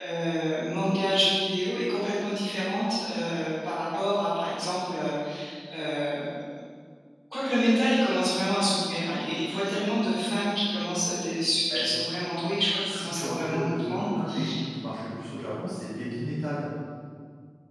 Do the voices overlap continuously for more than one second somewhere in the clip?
Yes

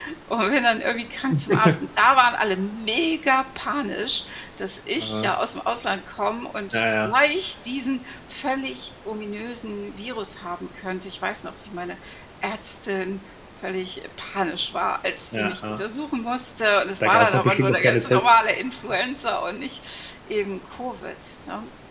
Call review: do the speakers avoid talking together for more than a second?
No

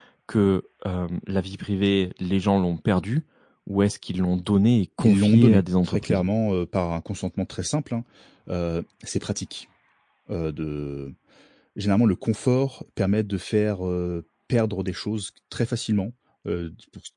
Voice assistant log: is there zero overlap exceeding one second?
No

